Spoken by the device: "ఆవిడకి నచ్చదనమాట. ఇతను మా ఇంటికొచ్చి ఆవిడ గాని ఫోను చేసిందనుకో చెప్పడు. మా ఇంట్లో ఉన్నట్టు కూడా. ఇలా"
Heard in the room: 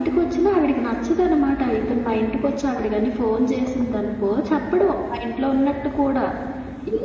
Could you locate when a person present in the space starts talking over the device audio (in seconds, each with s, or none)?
none